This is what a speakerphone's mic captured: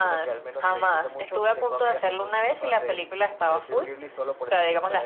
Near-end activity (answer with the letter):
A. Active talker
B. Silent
B